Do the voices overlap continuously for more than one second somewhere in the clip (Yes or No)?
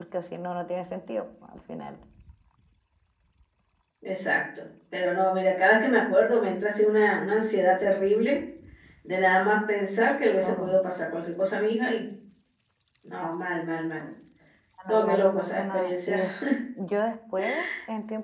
Yes